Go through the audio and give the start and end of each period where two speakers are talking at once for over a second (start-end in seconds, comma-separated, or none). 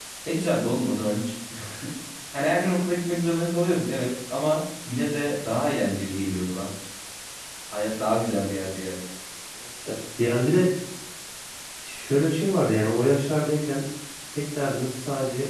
none